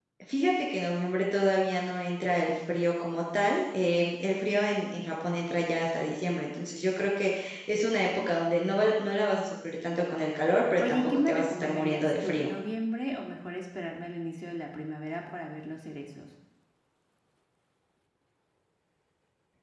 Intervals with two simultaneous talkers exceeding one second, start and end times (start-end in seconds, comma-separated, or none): 10.8-12.5